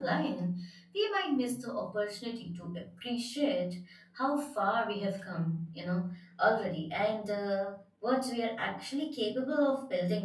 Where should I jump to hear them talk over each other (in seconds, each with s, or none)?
none